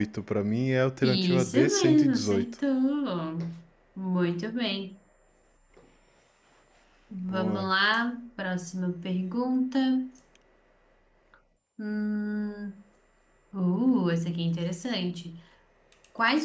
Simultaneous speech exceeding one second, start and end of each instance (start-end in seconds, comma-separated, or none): 1.0-2.5